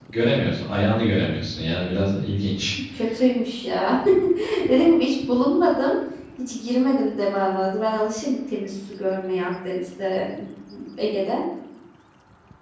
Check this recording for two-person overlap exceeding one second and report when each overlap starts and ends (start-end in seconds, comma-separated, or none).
none